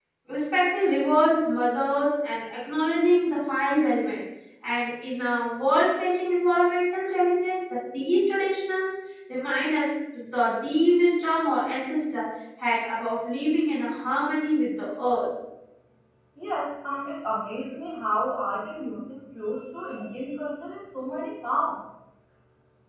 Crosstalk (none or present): none